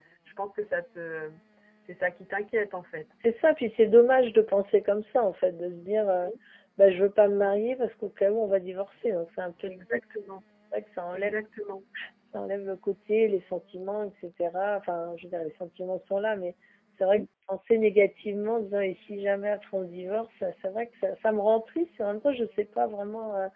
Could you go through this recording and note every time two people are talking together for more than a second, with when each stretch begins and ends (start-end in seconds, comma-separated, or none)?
none